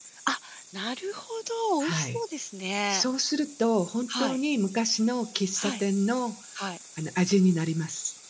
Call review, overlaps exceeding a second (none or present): none